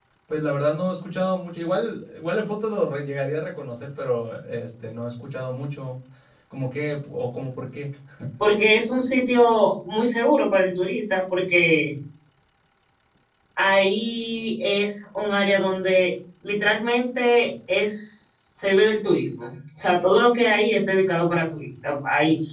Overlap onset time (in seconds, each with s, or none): none